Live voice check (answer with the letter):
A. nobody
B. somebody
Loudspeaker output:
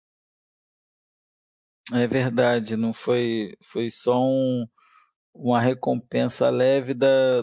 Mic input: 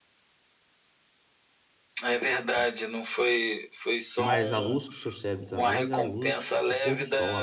B